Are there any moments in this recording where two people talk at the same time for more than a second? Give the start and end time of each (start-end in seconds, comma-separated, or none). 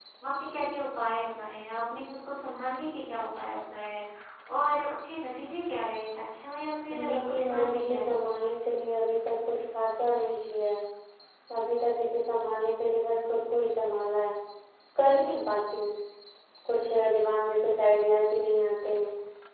6.9-8.2